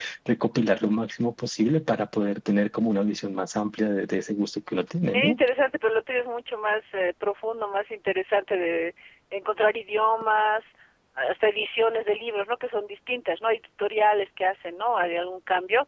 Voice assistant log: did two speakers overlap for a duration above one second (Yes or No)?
No